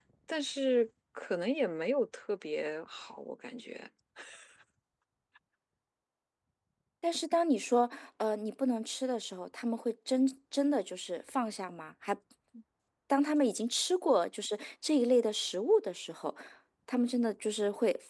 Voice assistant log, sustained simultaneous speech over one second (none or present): none